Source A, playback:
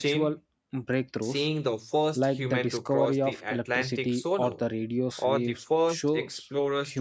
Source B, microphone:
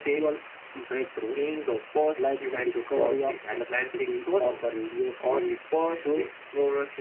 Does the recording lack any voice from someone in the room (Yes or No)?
Yes